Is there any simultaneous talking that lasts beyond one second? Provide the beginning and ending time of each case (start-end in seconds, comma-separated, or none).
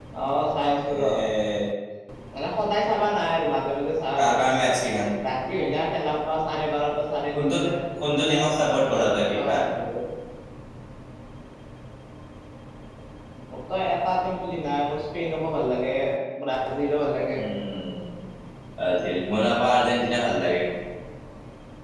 8.1-9.6